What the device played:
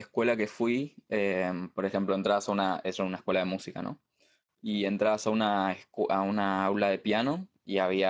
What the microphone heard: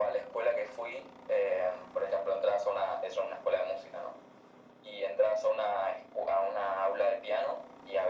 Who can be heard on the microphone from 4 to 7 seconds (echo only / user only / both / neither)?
echo only